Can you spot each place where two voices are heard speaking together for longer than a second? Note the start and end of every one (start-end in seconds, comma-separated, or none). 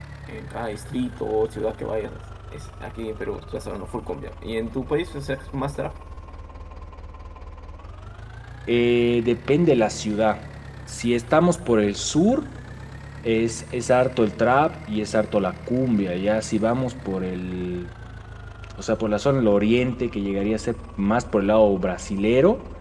none